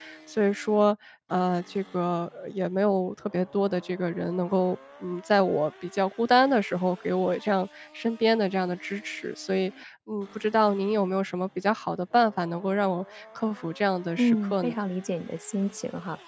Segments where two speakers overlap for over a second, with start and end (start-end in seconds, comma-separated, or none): none